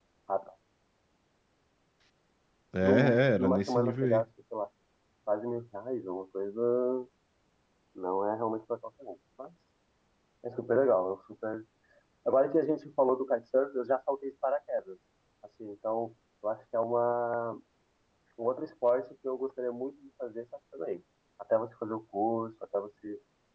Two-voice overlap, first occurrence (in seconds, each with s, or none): 2.8 s